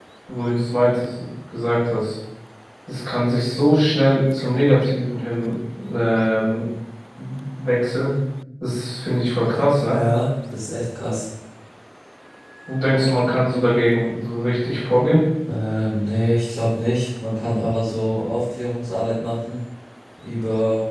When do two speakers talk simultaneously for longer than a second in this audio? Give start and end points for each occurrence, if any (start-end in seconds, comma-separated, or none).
none